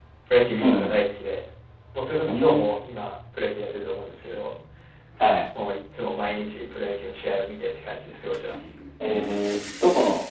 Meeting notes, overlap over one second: none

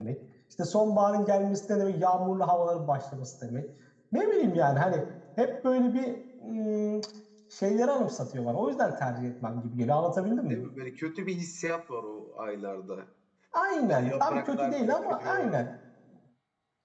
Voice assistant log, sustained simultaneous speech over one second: present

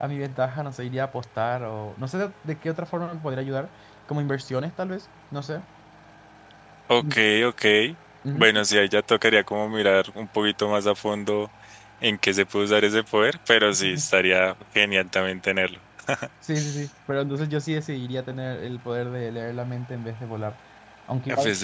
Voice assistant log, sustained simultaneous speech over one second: none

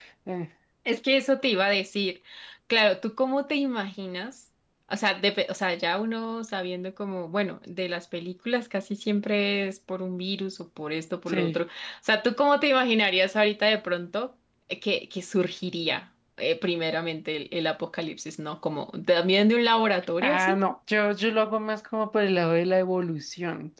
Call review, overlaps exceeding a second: none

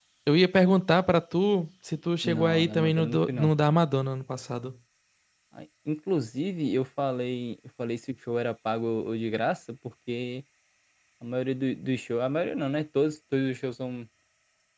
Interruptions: present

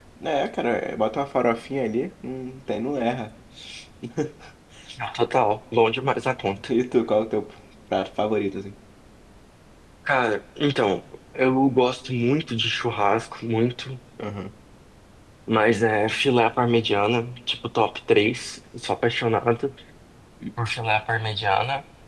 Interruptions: none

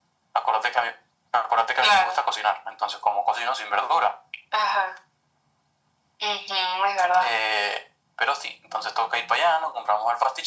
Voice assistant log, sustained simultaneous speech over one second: none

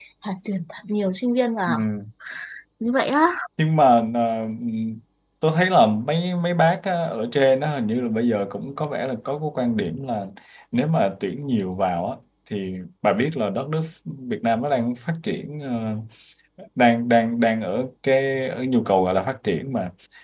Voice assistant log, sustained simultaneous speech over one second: none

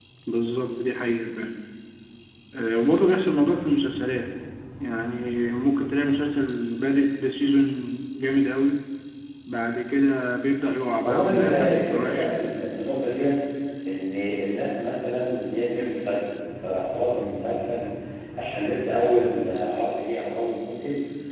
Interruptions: present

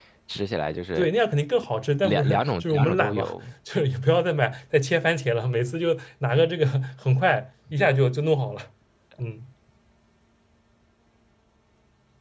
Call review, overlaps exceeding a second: present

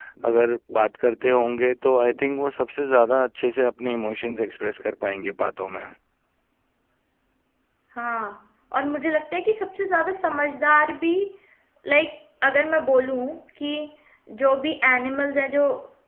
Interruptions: none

